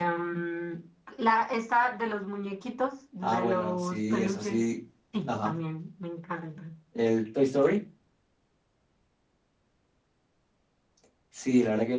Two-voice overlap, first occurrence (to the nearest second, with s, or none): 3 s